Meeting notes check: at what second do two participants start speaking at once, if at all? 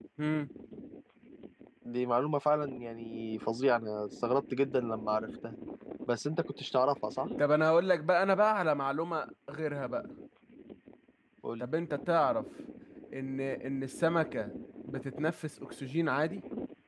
none

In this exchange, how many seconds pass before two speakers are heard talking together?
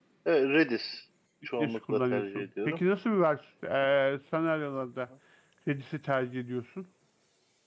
2 s

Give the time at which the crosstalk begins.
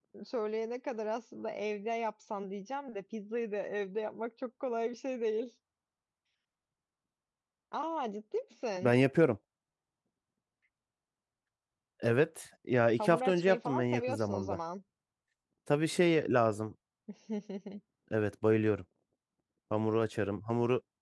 13 s

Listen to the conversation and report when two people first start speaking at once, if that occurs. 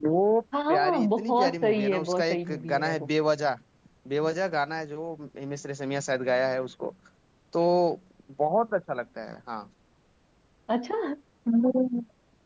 1 s

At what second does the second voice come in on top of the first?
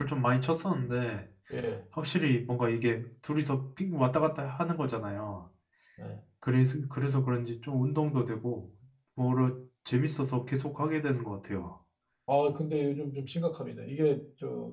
none

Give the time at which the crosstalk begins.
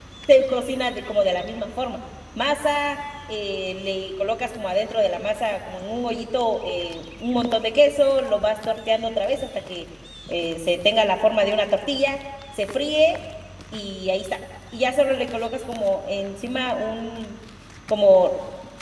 none

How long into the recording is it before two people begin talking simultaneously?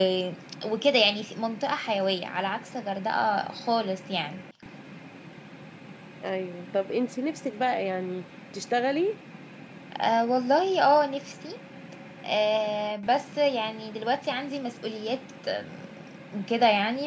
none

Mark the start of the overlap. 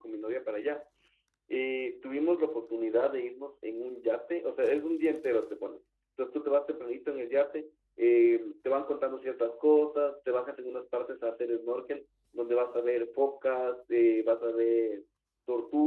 none

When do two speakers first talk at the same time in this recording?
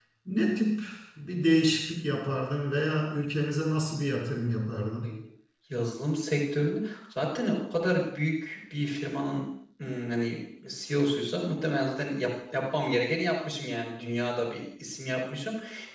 none

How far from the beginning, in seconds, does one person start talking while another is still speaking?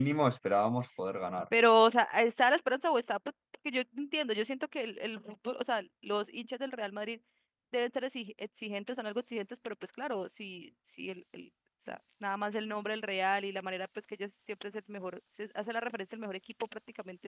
none

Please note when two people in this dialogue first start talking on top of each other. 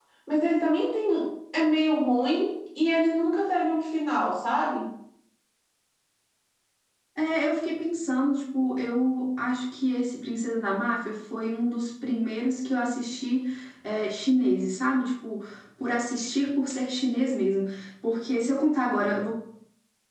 none

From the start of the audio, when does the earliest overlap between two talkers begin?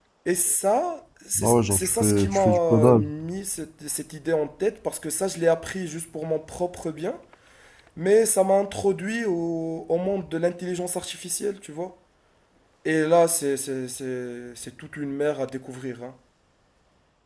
1 s

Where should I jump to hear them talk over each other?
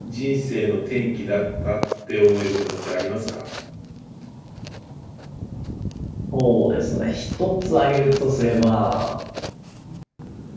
none

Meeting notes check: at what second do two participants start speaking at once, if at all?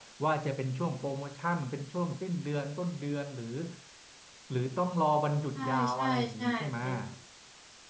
6 s

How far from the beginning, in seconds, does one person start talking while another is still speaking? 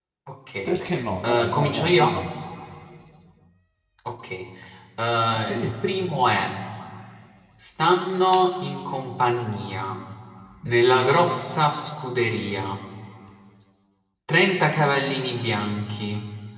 1 s

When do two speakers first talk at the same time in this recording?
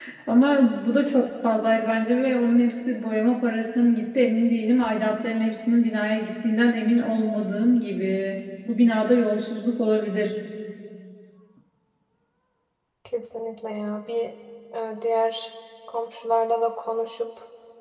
none

